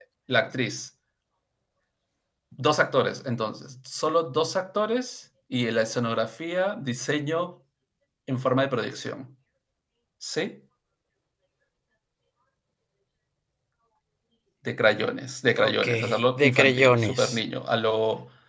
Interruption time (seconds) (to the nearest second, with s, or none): 16 s